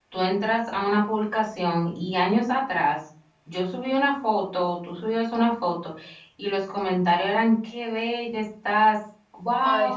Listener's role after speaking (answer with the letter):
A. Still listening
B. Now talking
A